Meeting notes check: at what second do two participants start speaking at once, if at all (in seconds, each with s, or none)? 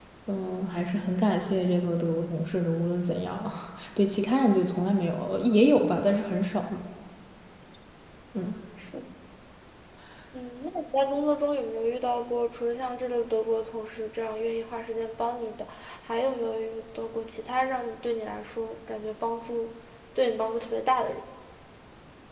none